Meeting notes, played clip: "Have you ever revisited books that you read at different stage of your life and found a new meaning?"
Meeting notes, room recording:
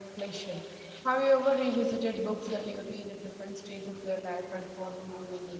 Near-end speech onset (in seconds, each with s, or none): none